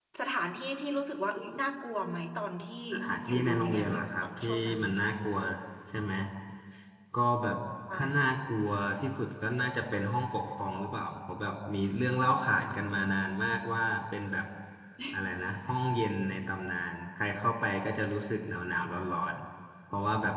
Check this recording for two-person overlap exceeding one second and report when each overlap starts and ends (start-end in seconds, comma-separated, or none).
3.2-4.8